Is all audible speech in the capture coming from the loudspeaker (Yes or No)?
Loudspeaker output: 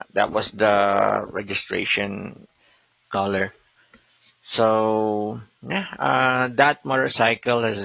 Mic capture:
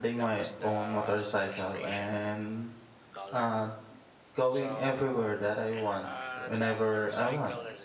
No